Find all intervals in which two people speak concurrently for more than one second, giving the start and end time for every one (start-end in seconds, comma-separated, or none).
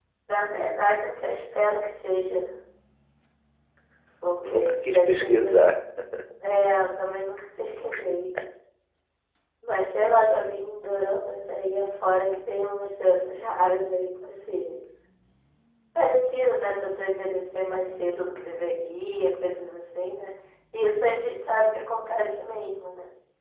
4.5-5.7